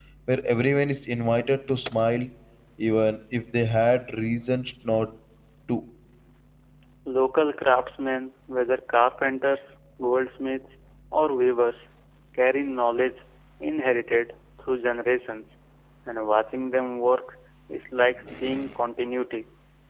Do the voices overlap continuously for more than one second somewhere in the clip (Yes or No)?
No